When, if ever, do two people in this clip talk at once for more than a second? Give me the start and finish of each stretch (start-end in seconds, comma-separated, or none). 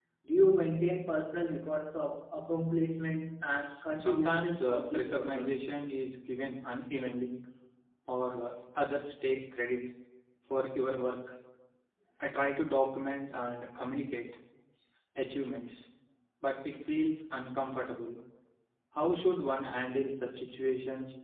4.0-5.6